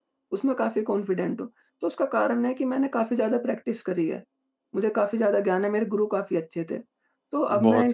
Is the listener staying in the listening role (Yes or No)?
Yes